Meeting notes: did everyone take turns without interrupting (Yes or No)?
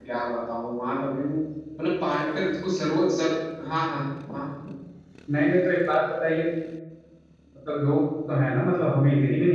Yes